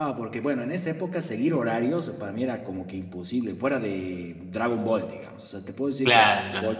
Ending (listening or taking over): listening